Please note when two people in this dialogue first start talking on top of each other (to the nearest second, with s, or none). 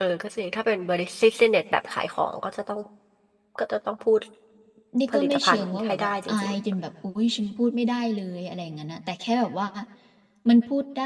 5 s